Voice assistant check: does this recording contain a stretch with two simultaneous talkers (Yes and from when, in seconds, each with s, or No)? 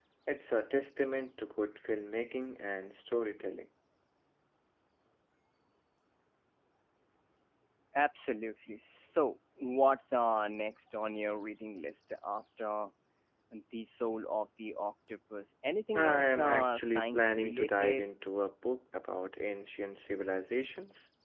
Yes, from 15.9 s